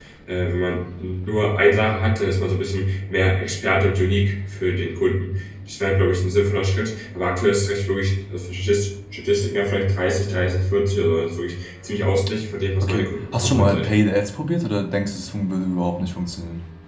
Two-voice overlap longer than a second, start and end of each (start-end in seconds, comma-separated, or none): 12.8-14.0